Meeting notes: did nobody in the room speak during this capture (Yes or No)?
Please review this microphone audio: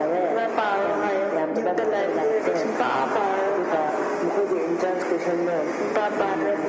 Yes